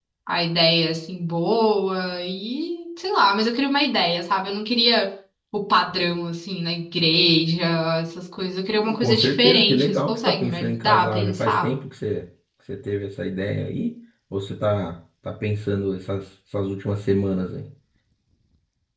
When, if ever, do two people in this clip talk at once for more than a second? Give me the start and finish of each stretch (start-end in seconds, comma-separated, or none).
9.0-11.7